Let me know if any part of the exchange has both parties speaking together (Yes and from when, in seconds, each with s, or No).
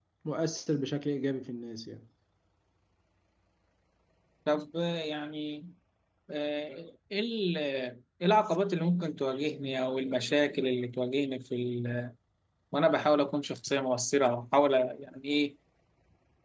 No